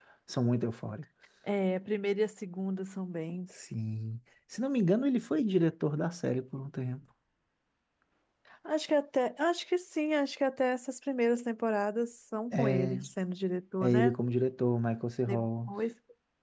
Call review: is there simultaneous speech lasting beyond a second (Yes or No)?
No